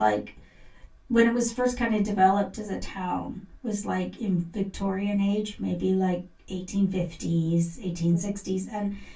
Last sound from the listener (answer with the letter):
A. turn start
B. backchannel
B